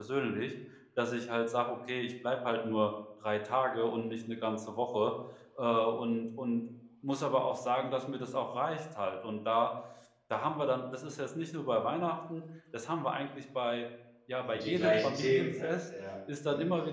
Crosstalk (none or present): present